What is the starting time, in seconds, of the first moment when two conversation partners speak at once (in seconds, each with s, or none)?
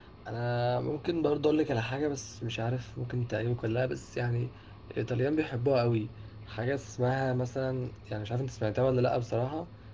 none